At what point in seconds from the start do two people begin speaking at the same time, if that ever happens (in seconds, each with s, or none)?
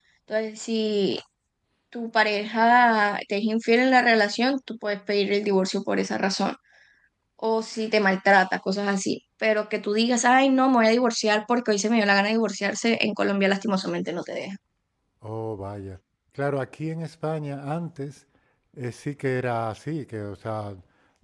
none